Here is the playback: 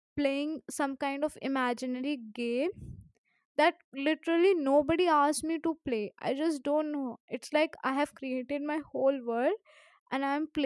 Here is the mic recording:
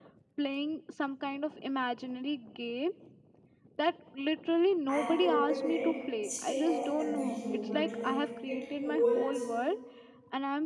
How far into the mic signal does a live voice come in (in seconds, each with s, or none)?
4.9 s